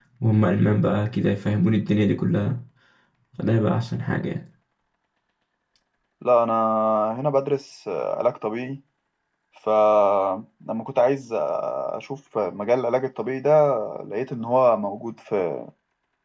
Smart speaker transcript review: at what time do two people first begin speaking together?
none

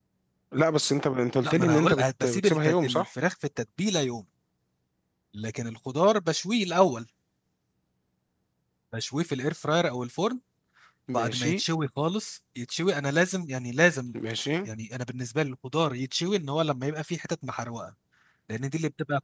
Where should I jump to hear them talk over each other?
1.4 s

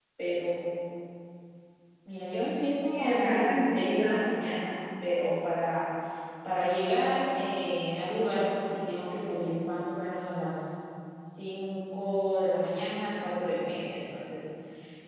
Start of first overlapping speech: 2.9 s

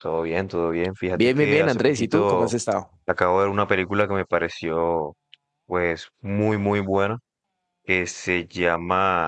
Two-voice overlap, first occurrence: 1.2 s

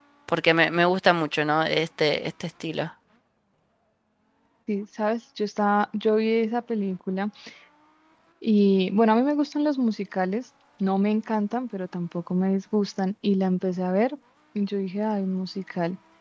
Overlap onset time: none

